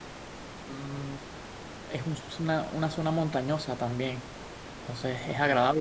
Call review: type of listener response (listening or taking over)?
listening